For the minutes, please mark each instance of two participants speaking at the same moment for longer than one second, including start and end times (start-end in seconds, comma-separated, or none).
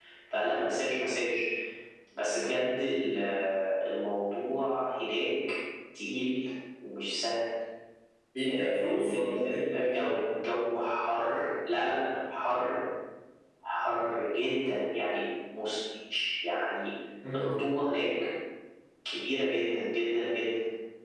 8.4-10.1